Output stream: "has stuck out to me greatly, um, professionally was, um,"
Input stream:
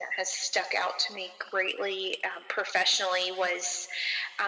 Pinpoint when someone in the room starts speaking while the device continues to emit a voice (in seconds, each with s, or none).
none